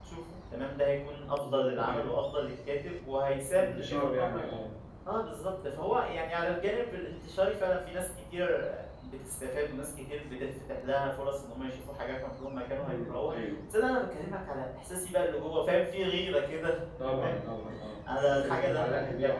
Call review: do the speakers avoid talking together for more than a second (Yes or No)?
No